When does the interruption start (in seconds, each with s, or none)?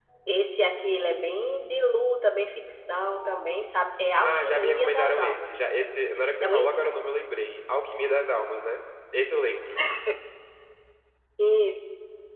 4.2 s